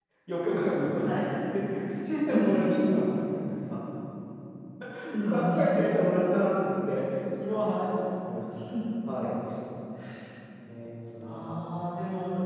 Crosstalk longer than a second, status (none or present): none